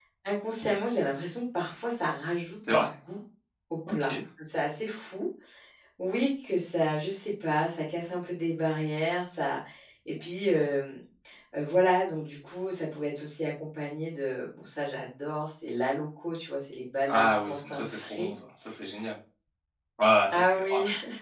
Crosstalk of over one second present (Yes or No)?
Yes